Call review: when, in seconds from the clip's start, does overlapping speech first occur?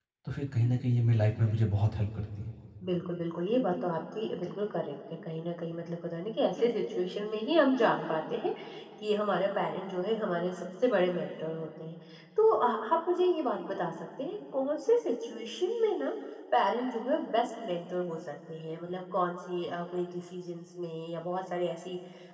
none

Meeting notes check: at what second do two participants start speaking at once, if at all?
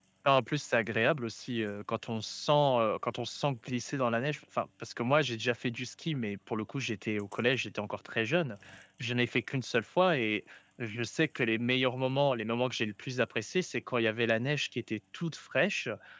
none

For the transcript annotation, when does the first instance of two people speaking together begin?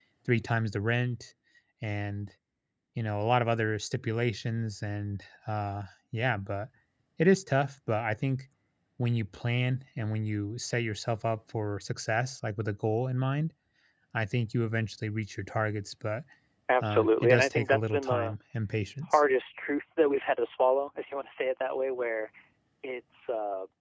17 s

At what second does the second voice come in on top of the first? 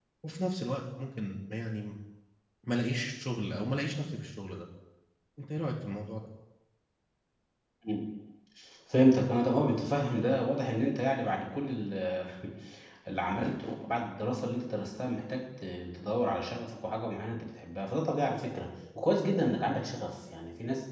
none

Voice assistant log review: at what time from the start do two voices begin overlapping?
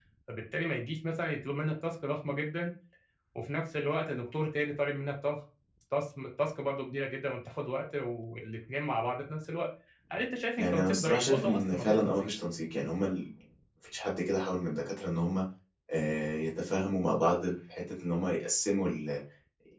11 s

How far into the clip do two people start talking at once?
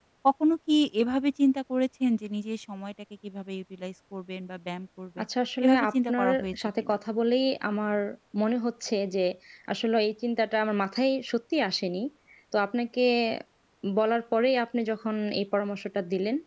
6 s

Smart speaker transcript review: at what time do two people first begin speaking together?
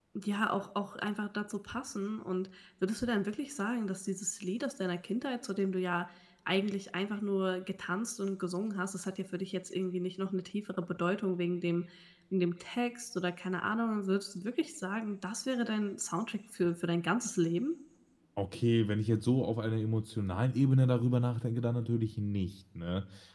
none

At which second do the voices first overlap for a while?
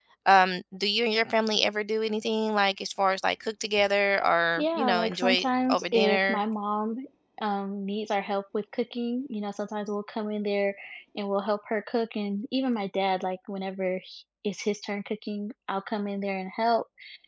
5 s

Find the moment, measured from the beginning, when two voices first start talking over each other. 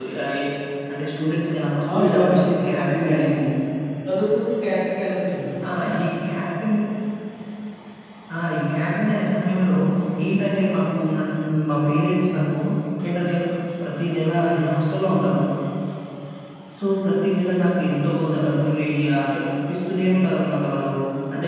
2 s

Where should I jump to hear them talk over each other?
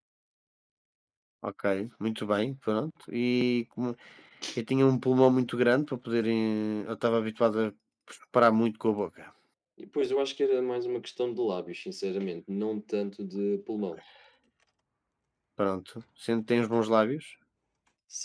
none

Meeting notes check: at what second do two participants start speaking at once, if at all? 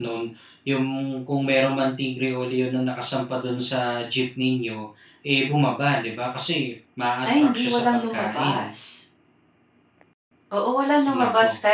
7 s

